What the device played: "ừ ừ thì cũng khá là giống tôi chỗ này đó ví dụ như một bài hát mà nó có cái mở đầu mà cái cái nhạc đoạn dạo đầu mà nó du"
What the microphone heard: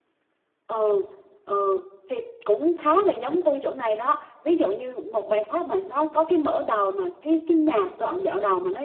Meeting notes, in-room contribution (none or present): none